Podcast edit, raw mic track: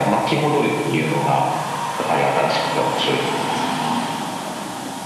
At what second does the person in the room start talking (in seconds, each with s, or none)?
none